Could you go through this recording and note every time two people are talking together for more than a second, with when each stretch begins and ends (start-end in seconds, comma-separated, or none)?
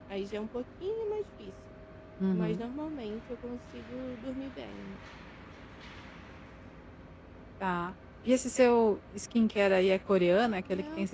none